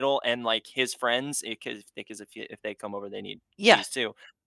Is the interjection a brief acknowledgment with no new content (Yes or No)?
Yes